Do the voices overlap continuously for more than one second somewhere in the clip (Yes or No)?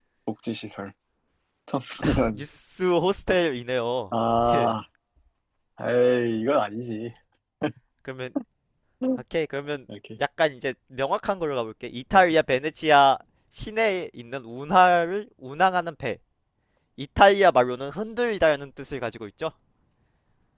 No